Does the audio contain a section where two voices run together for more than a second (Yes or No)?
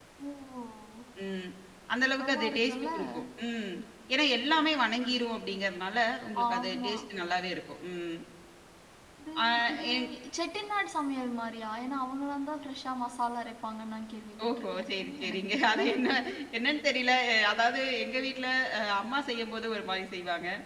Yes